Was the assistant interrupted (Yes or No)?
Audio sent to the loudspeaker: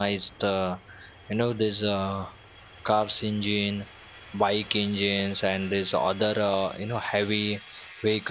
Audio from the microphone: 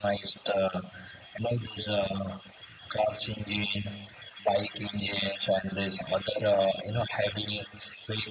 No